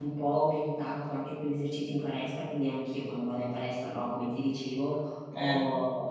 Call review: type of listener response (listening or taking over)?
listening